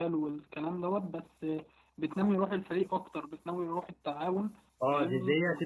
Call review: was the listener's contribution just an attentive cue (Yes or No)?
No